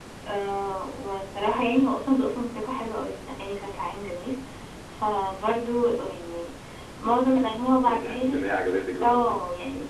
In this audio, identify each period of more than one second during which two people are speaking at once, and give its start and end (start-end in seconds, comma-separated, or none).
none